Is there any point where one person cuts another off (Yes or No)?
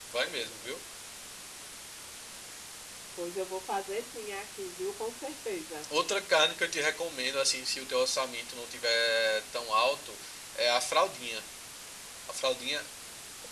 No